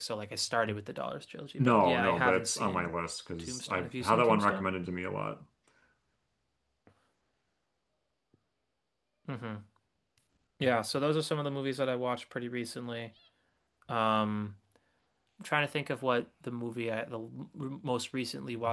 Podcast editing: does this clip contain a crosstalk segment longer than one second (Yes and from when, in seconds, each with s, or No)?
Yes, from 1.6 s